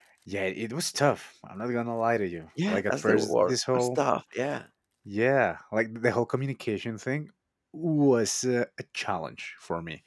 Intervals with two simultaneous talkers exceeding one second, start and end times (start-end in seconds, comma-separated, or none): 2.7-4.0